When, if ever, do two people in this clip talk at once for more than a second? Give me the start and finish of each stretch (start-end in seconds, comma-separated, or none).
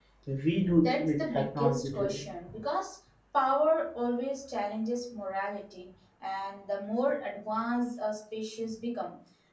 0.8-2.2